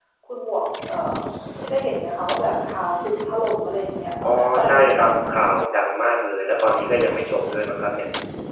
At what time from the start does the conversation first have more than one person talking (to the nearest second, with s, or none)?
4 s